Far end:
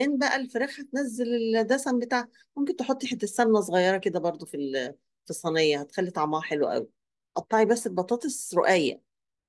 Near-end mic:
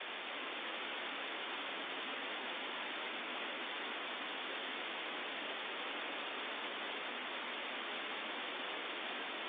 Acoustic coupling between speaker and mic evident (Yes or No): No